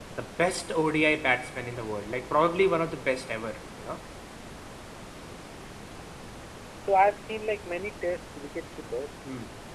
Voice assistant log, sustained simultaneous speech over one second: none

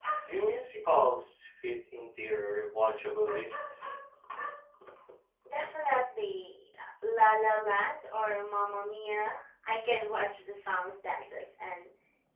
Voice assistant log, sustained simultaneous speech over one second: none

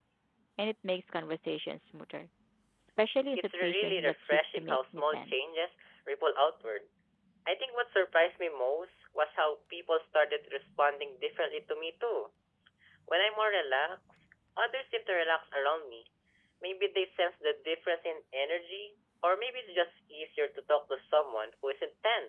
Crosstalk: present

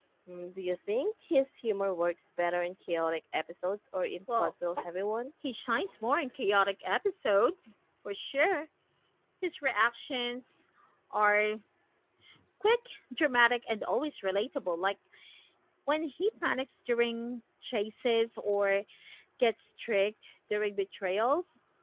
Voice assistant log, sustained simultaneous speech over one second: none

